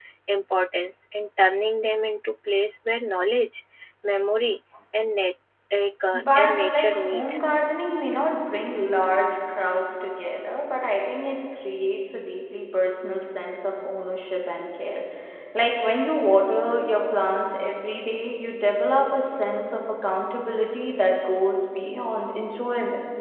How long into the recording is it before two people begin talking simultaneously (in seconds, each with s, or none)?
6.1 s